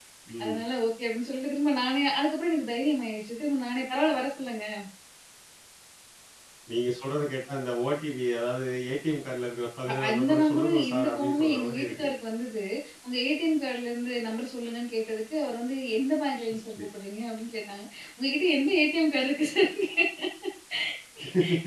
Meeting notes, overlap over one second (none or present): present